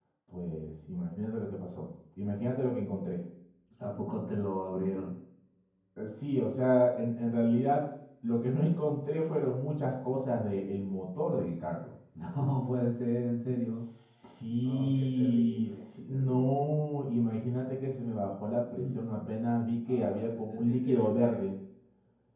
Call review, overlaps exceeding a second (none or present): present